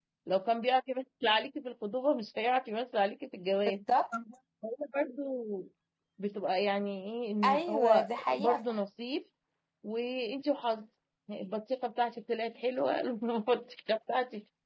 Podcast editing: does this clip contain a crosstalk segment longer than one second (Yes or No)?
Yes